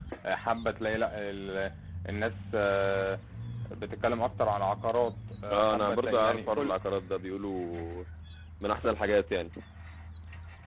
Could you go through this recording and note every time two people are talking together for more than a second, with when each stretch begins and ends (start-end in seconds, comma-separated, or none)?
5.5-6.7